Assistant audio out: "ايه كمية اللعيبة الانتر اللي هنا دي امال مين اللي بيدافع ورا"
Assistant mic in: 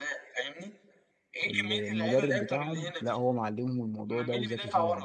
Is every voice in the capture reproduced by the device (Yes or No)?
No